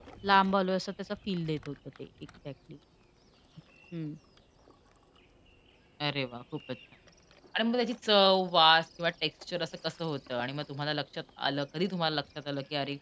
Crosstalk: none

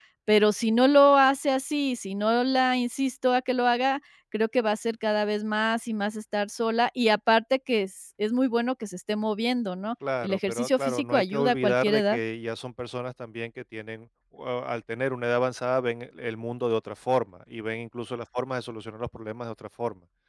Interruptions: present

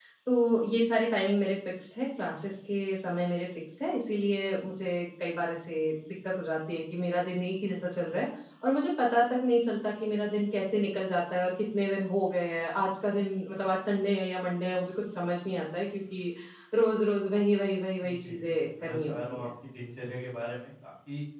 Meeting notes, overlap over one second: present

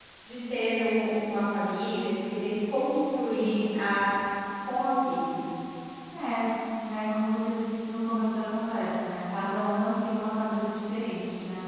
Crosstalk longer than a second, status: none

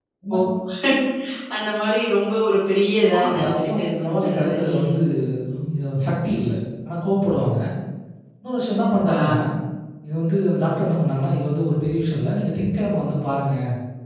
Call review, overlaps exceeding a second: present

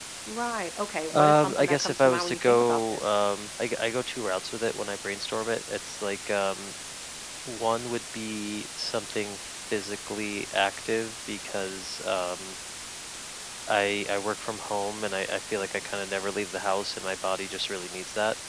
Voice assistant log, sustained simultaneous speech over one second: present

